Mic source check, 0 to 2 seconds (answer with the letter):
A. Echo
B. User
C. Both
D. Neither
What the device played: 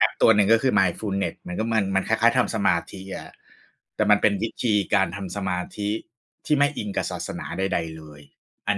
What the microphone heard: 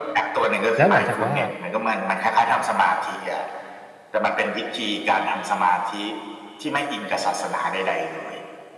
C